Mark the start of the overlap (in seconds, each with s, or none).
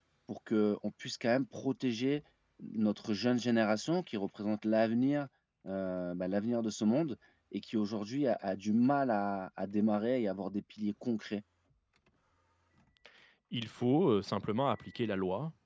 none